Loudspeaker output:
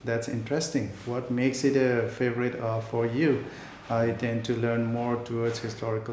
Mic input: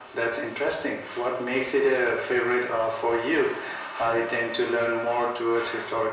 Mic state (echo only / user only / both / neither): echo only